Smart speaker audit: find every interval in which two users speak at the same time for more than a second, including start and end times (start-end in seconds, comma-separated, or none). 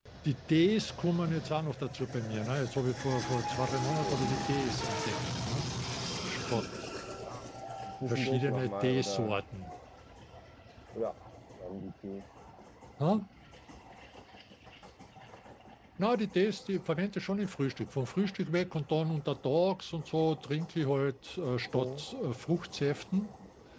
8.1-9.4